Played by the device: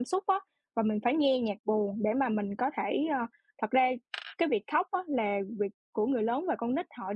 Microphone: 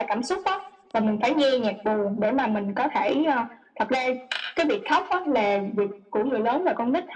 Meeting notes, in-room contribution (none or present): none